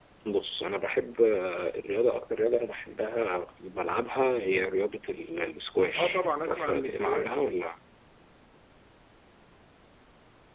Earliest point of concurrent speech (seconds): 6.0 s

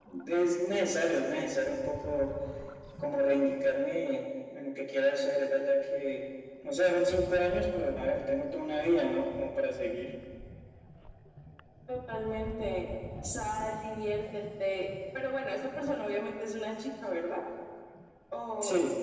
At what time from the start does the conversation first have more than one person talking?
none

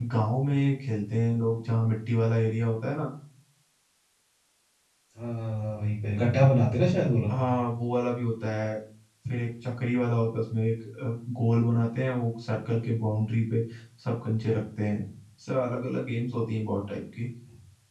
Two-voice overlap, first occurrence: none

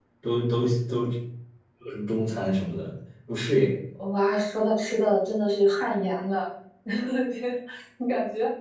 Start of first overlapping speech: none

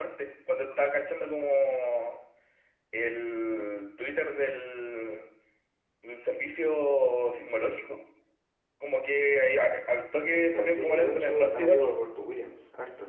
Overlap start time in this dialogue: 10.2 s

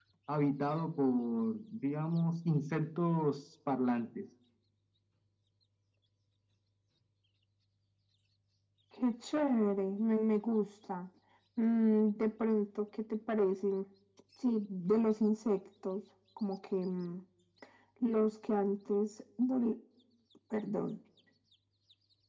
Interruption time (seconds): none

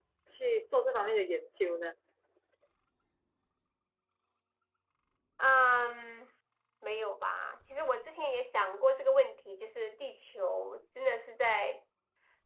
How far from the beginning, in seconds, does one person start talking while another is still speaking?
none

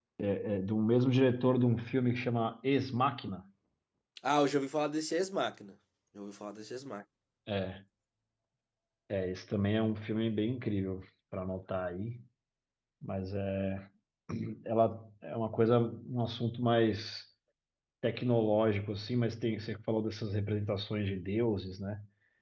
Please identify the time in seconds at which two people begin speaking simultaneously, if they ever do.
none

